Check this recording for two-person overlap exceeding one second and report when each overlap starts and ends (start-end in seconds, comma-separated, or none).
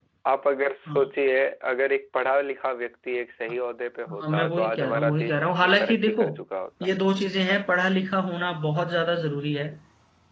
4.2-6.2